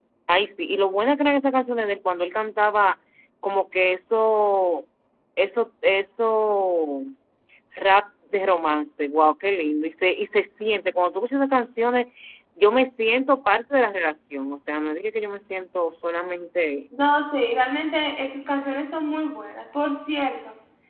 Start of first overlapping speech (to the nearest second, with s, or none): none